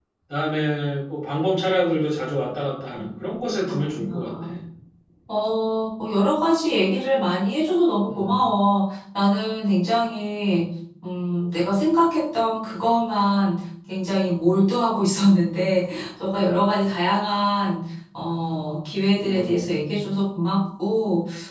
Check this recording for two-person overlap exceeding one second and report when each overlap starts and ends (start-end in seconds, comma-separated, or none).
3.0-4.5